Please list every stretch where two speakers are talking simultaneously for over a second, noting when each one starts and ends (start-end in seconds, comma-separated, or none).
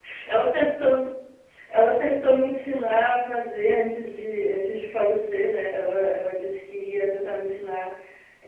none